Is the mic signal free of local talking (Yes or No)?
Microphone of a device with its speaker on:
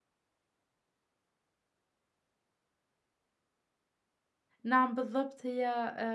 No